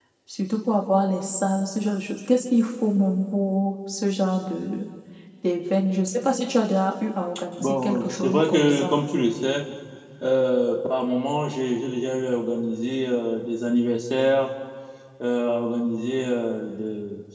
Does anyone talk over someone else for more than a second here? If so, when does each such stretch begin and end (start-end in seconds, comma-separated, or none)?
7.6-9.0